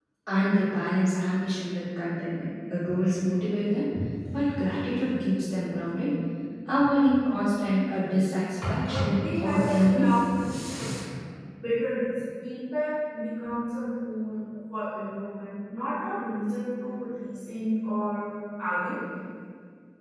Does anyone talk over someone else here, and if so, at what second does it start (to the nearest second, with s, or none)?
9 s